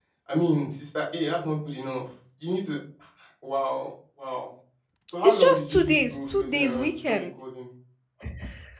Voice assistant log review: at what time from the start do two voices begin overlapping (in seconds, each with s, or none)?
5.2 s